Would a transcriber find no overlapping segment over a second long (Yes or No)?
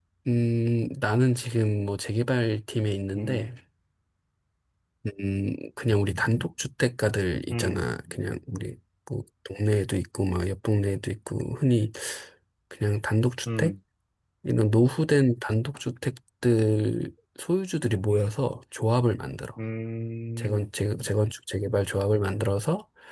Yes